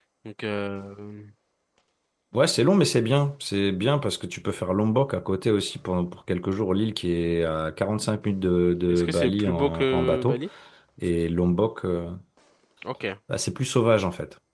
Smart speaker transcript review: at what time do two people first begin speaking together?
8.9 s

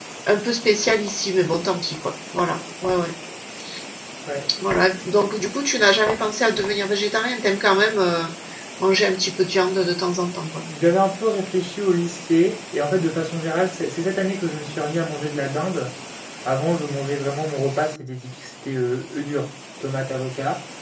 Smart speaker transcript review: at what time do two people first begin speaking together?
none

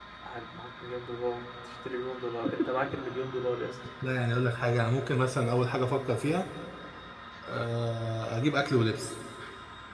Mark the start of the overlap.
none

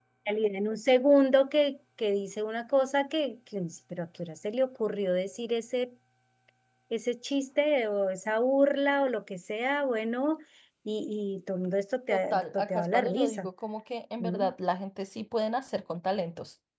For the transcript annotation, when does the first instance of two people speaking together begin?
12.1 s

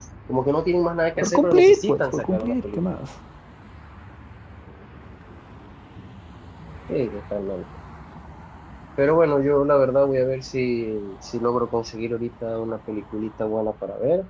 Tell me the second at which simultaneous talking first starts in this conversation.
1.2 s

